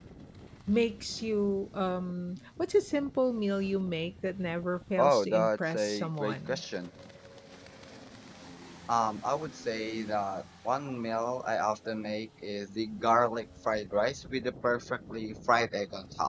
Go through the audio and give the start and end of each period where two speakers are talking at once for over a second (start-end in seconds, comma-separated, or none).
5.0-6.6